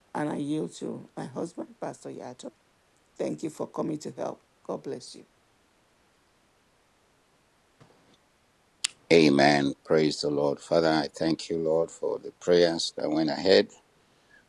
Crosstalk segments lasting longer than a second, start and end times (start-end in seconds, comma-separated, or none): none